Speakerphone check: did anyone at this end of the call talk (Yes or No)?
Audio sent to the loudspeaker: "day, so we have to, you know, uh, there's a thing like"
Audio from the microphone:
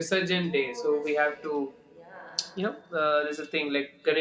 Yes